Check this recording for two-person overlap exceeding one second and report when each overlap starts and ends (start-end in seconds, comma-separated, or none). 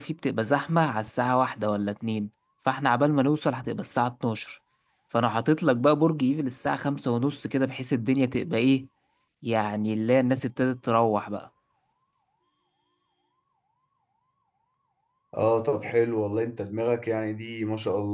none